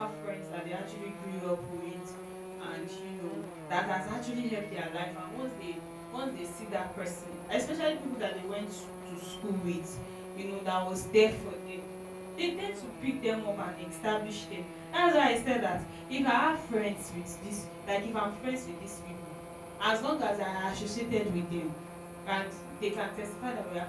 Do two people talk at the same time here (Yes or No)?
No